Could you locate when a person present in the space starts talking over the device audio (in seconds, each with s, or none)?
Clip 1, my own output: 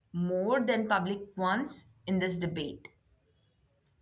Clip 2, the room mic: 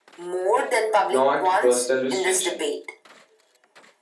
1.1 s